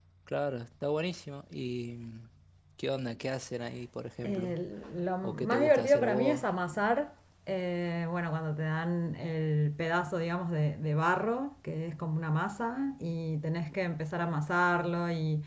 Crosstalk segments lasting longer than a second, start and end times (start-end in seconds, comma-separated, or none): 5.2-6.5